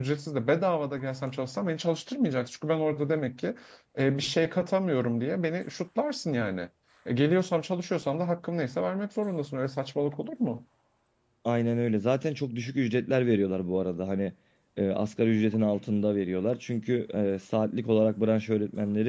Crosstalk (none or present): none